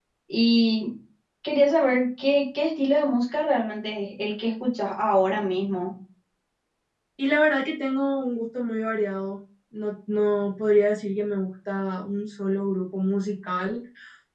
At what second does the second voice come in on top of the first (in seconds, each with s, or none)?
none